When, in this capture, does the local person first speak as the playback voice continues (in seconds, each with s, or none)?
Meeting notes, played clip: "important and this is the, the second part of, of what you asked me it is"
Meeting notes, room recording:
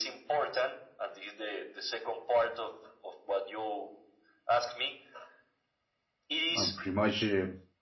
6.5 s